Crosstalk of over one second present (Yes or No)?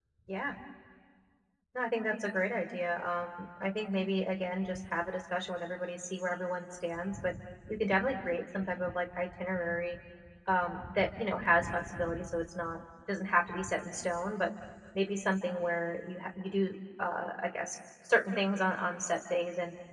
No